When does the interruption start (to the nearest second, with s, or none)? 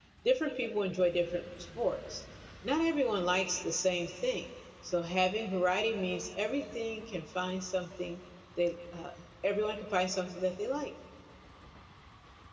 none